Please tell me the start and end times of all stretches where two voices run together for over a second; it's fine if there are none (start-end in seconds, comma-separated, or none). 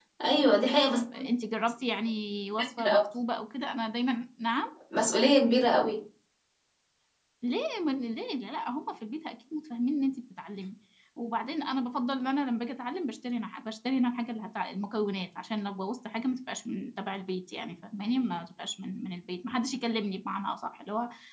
none